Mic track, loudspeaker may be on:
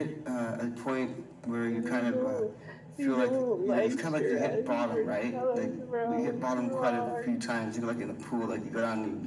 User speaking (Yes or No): Yes